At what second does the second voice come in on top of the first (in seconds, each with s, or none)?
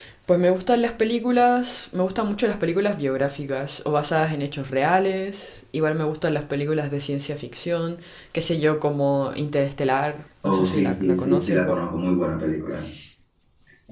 10.4 s